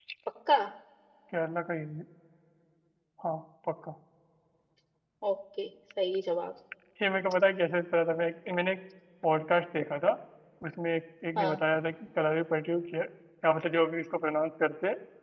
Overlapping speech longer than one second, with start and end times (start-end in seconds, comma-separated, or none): none